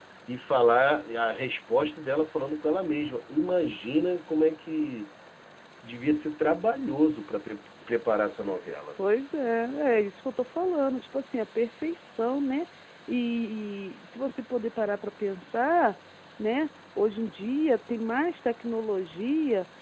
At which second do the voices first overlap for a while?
none

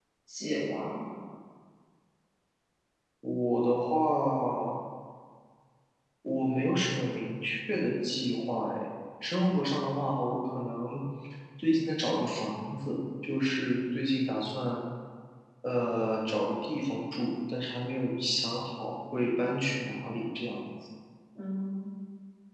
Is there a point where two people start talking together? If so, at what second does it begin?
none

